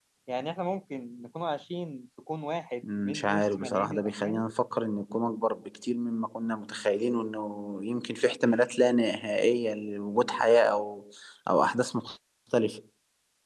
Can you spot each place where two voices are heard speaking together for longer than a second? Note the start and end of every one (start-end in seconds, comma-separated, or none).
2.8-4.4